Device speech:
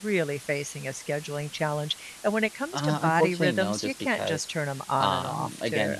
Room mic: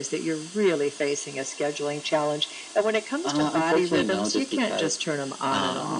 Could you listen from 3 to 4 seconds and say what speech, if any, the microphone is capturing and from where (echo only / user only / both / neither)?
echo only